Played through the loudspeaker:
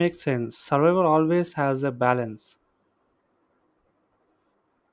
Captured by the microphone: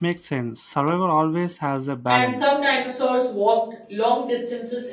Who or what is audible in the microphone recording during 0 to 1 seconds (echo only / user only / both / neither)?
echo only